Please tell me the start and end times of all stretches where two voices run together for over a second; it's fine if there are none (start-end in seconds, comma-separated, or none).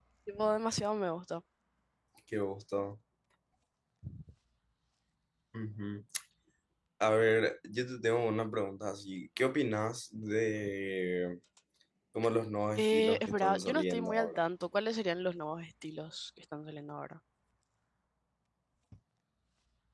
12.8-14.4